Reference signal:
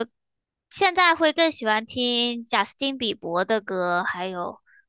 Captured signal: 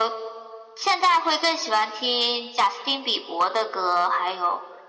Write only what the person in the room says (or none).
none